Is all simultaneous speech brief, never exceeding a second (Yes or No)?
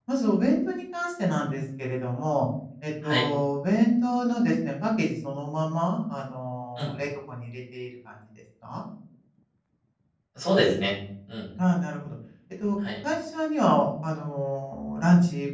Yes